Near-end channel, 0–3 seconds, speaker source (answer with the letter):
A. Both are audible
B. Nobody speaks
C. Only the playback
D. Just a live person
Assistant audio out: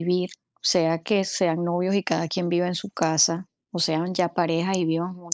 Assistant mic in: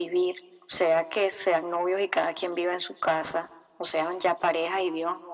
C